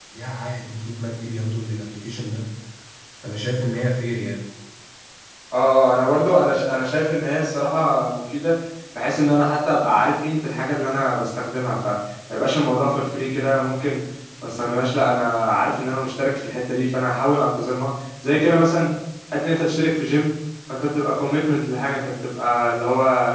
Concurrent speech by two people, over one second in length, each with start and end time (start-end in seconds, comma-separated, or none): none